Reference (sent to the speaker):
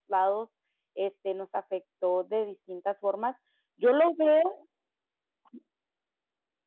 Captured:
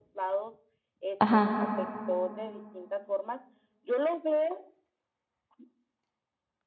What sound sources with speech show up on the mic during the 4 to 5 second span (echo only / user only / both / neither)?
echo only